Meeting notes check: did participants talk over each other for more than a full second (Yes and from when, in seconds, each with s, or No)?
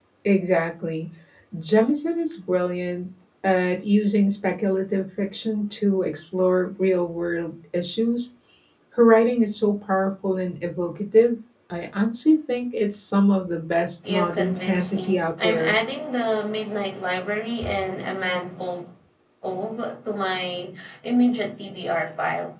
Yes, from 14.0 s